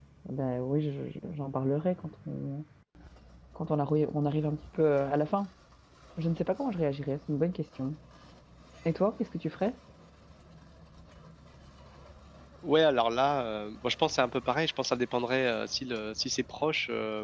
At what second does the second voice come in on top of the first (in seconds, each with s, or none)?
none